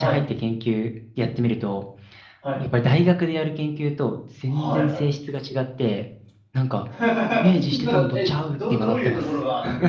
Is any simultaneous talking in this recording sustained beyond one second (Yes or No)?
Yes